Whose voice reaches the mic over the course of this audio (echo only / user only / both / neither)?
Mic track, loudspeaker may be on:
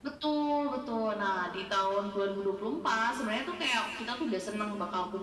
echo only